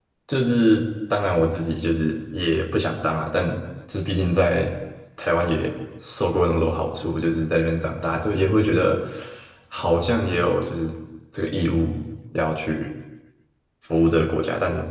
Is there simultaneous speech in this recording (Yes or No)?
No